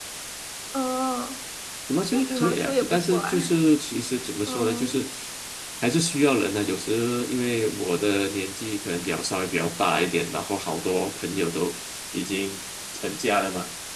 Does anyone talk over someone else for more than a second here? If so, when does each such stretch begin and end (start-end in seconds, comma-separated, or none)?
2.1-3.3